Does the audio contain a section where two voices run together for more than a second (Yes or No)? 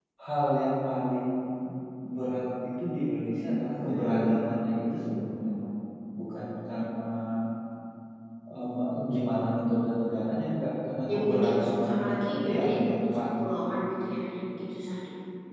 Yes